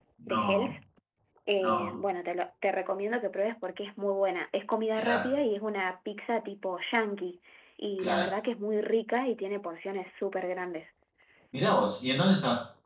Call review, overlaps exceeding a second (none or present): none